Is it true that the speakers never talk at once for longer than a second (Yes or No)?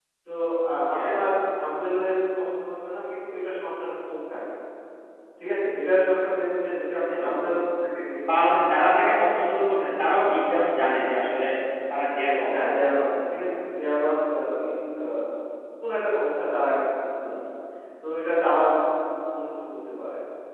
Yes